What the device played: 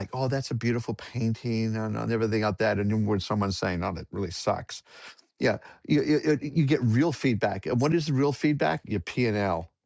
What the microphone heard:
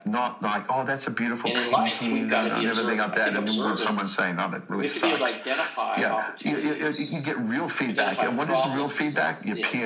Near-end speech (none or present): present